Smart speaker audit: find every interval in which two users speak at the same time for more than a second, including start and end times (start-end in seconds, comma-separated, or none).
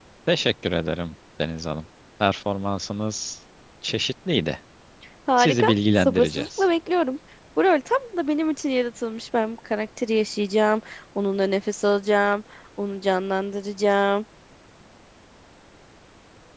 5.4-6.6